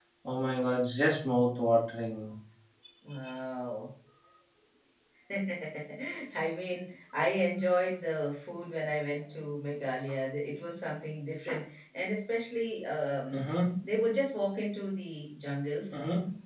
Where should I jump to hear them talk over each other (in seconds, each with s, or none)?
none